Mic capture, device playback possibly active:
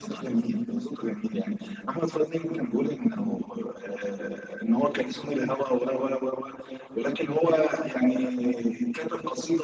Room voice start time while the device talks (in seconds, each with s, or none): none